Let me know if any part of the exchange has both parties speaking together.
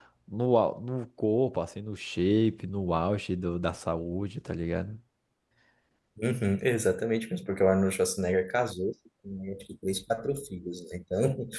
No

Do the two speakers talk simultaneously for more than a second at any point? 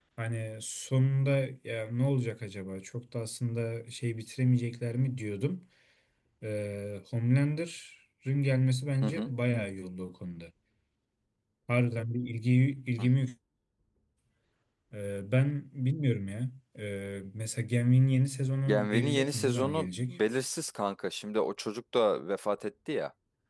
Yes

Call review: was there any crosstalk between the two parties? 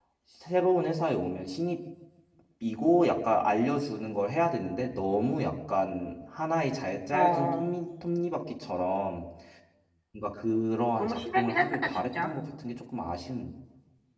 Yes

